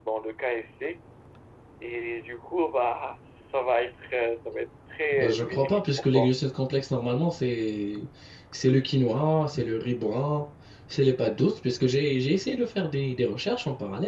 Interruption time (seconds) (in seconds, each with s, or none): 5.1 s